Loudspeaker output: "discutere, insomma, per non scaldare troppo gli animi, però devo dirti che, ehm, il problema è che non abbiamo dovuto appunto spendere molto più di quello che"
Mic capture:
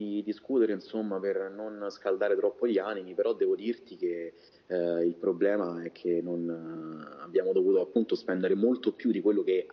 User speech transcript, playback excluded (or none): none